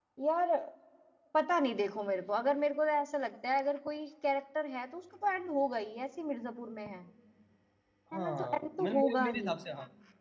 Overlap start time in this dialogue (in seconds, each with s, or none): 8.1 s